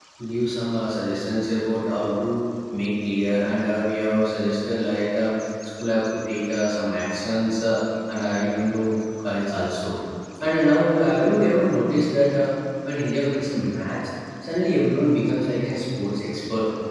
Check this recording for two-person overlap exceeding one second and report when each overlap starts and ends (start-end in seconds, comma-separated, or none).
none